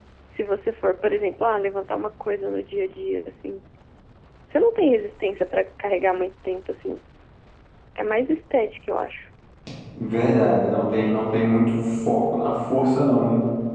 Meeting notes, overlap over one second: none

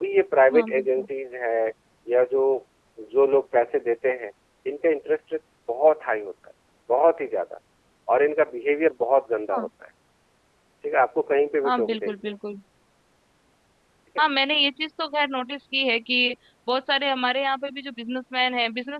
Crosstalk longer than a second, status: none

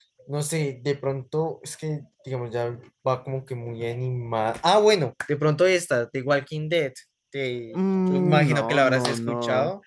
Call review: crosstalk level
present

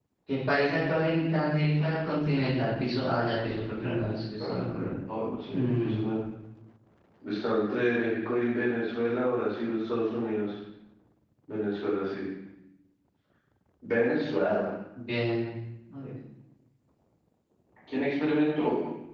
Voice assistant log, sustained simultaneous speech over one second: none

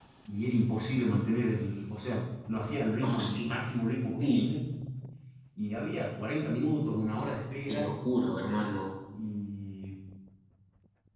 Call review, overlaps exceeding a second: none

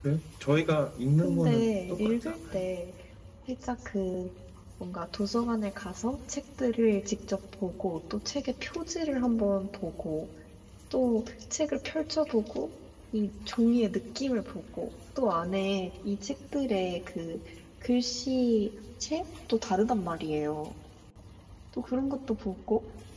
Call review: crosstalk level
present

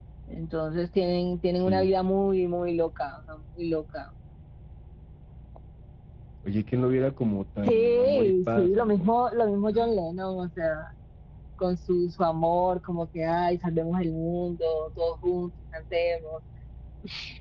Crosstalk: present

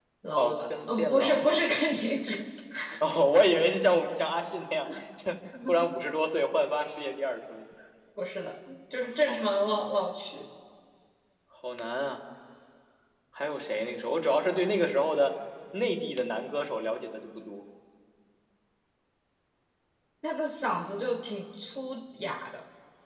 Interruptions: present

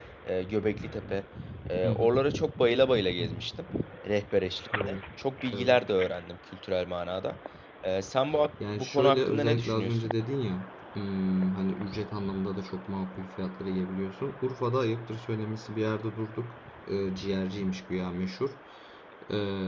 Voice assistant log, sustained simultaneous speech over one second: present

